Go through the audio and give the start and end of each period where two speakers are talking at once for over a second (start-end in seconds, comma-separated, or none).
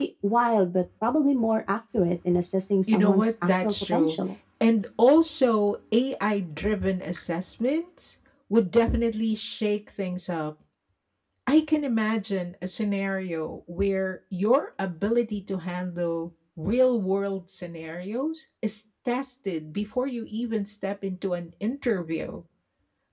2.9-4.2